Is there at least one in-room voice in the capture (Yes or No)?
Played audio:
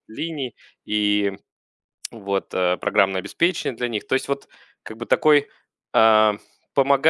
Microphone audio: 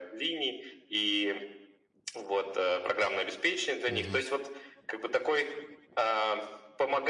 Yes